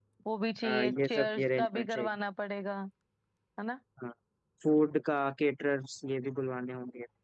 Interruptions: present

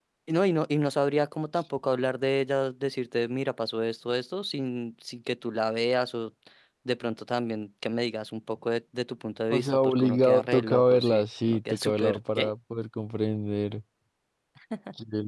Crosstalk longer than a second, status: present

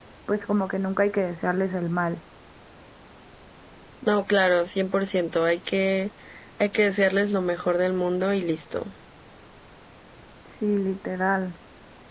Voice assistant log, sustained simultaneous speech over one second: none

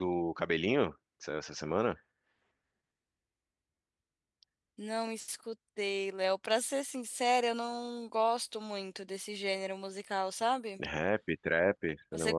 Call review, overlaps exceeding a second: none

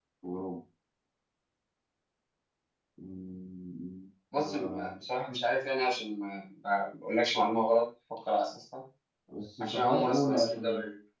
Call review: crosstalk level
present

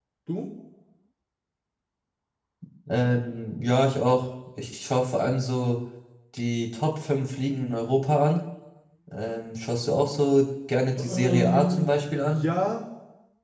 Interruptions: present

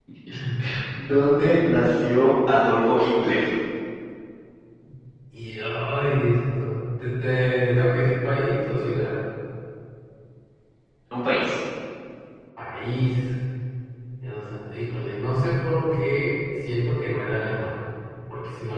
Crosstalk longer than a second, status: none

